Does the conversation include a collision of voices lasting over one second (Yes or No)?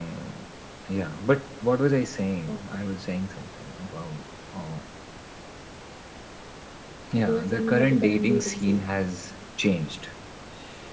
Yes